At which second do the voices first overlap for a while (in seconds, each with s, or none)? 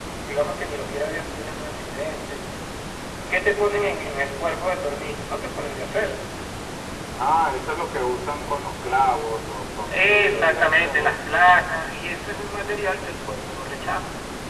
9.9 s